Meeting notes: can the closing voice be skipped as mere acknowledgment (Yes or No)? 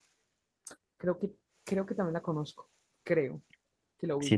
No